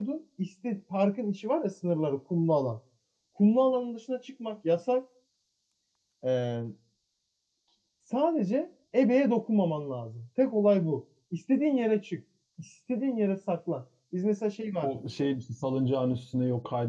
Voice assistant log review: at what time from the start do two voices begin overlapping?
none

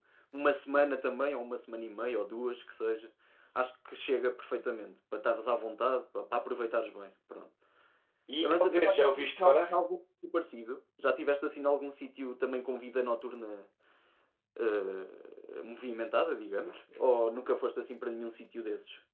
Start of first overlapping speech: 8.4 s

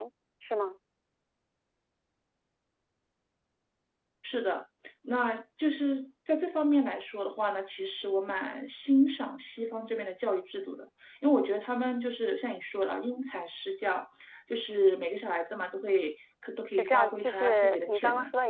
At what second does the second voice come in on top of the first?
16.7 s

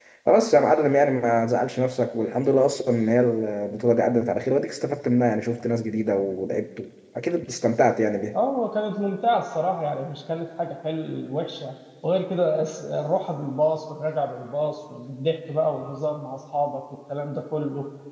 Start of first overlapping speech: none

